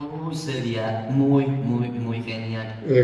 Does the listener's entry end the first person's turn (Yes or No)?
Yes